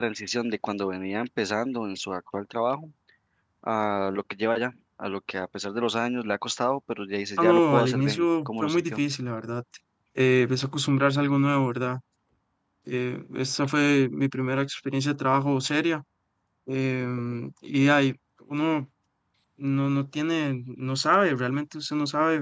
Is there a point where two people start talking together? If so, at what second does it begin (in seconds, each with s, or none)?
7.4 s